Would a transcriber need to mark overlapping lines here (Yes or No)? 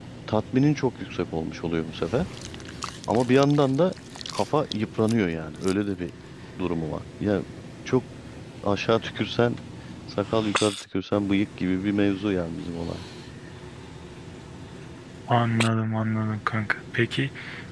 No